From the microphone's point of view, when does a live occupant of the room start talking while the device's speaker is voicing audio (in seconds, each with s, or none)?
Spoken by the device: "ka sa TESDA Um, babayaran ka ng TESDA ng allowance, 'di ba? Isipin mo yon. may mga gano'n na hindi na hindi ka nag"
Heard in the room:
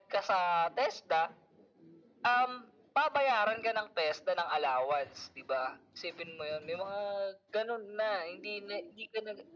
none